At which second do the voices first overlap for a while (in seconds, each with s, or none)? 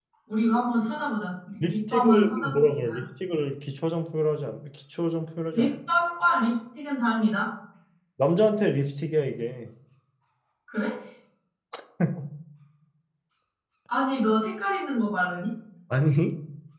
1.6 s